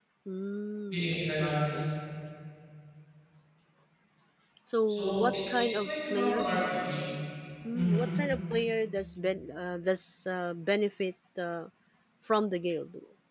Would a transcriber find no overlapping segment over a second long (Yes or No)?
No